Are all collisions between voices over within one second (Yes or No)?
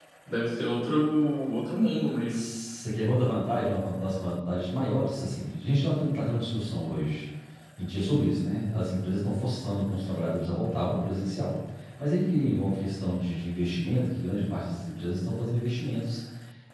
Yes